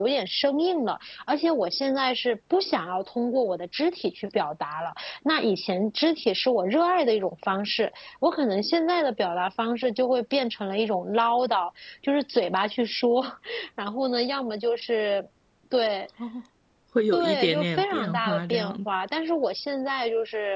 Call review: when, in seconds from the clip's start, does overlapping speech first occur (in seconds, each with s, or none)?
17.1 s